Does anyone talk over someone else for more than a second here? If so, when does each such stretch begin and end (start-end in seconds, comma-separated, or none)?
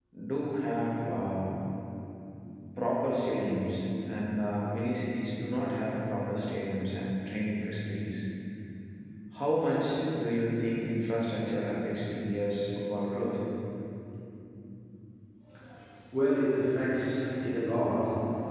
none